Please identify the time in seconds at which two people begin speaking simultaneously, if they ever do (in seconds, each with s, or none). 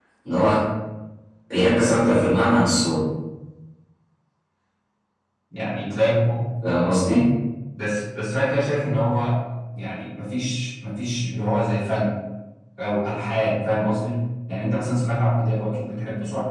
none